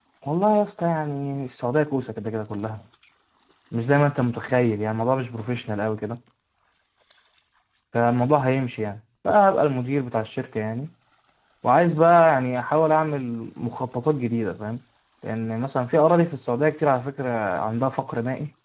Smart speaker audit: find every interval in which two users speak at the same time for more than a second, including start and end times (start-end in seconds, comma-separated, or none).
none